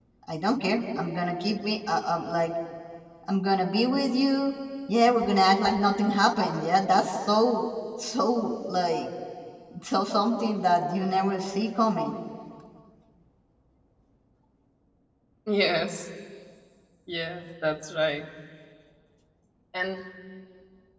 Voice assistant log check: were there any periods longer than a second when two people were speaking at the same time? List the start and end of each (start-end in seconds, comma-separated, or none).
none